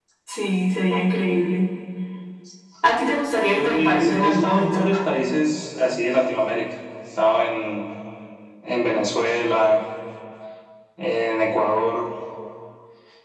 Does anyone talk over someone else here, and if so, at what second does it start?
3.6 s

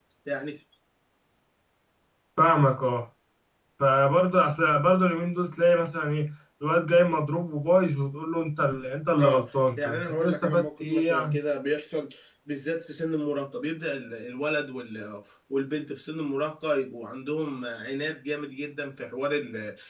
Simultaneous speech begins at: 9.2 s

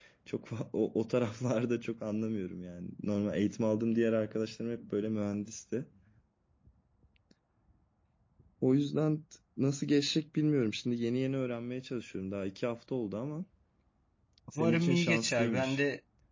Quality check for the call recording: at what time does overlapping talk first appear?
14.5 s

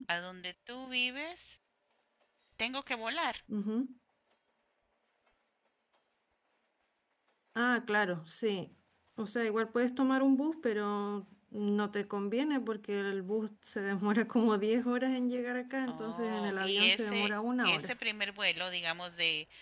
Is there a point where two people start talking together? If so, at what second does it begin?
15.9 s

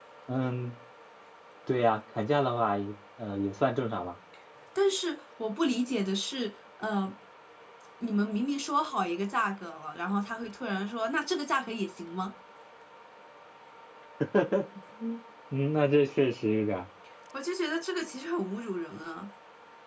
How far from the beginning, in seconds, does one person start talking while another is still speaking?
none

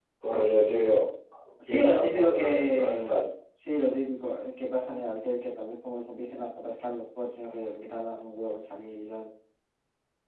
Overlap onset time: 1.7 s

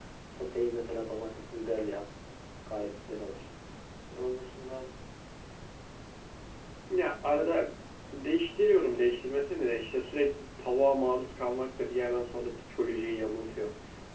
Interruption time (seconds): none

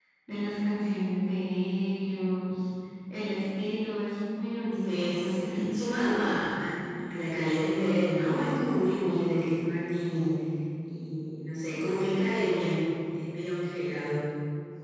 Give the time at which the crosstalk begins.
4.8 s

